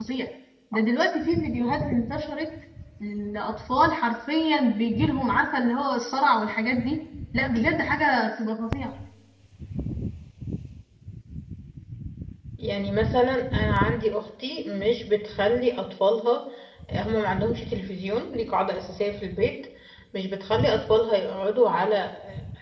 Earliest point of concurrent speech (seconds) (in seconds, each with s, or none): none